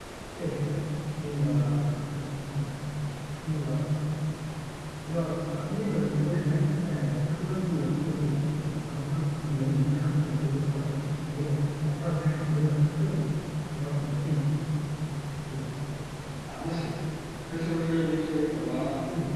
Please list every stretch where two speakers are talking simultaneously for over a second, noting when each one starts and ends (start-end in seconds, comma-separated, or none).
none